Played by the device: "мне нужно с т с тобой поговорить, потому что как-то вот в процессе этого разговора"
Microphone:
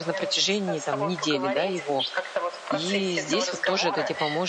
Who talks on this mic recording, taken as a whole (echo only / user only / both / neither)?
both